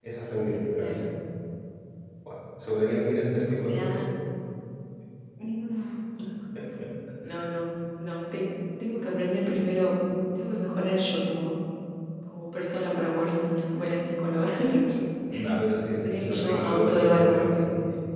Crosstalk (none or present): present